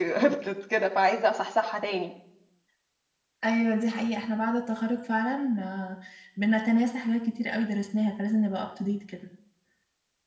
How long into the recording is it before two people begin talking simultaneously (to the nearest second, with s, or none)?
none